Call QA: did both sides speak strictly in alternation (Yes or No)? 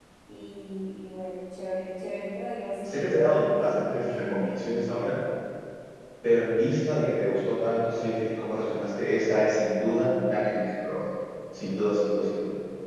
No